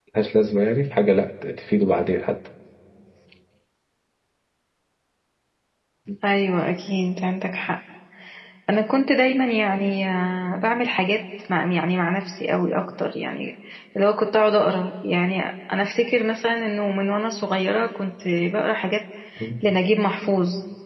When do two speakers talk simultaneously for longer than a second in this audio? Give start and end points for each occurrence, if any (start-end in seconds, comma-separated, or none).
none